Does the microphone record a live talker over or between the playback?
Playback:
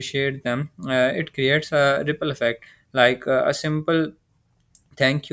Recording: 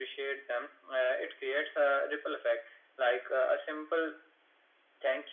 No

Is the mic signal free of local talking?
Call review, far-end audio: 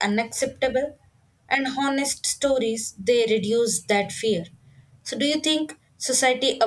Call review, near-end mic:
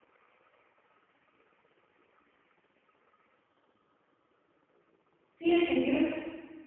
No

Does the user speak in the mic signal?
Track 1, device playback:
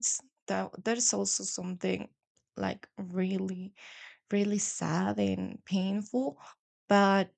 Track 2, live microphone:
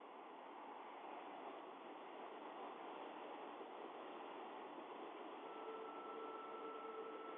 No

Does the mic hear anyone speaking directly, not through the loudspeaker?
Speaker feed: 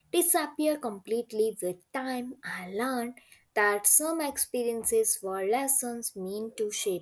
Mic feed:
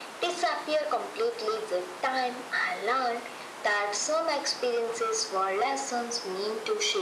No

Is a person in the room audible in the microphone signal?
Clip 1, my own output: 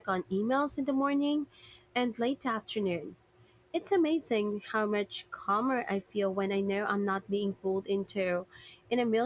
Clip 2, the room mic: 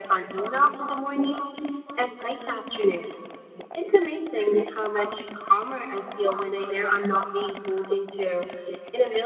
No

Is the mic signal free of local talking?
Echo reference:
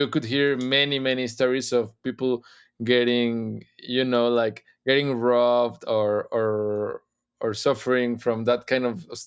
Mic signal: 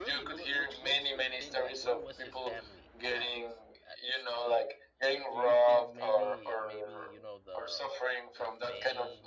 No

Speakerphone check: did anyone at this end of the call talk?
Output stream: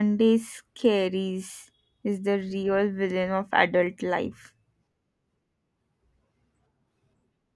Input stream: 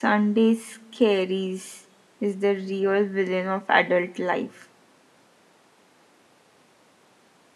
No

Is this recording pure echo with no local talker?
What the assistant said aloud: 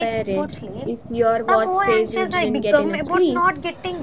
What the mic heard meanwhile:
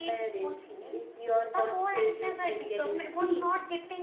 Yes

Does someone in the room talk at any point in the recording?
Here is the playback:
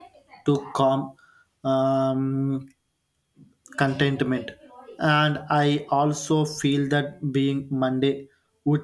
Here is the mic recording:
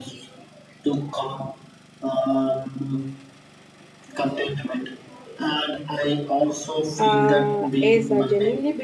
Yes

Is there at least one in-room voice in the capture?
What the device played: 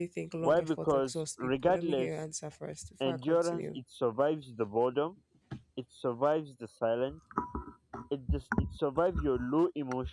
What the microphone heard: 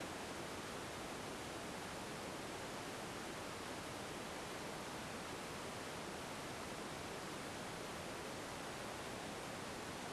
No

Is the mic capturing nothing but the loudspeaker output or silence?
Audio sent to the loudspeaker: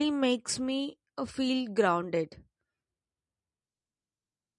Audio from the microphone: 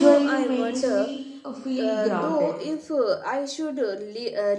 No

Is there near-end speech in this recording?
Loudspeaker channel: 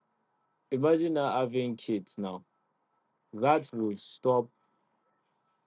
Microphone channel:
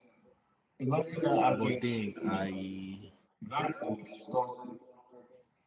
Yes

